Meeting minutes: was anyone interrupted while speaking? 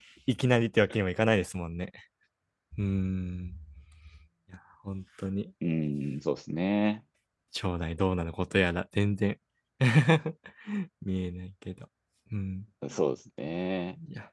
No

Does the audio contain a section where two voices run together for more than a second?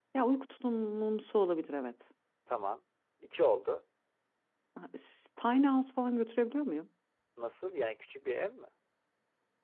No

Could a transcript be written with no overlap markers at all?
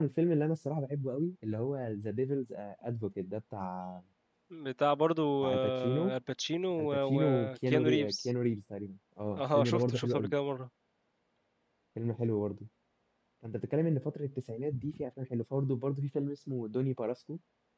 No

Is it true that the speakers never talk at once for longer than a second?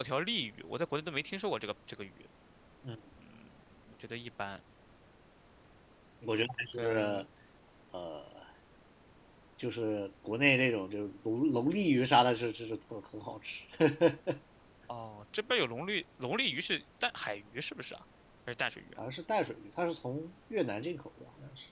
Yes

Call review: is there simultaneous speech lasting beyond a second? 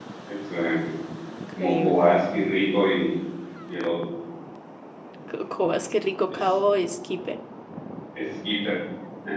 No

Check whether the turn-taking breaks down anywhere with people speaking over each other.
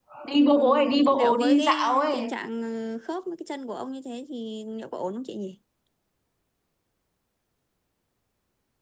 Yes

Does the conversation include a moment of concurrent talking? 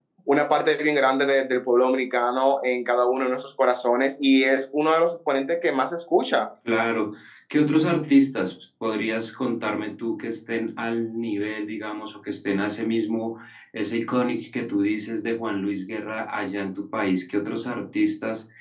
No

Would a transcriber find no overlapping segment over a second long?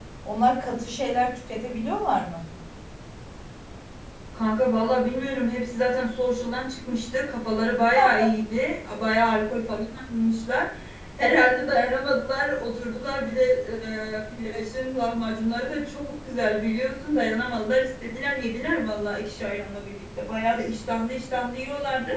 Yes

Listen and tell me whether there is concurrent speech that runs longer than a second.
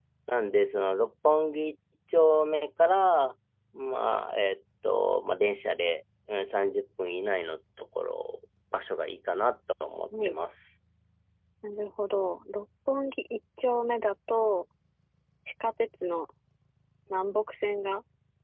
No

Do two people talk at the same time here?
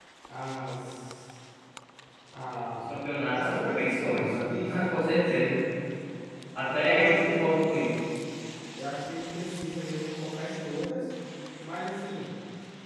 Yes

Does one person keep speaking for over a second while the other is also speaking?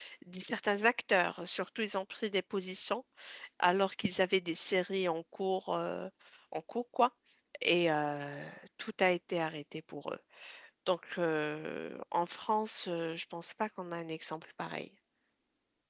No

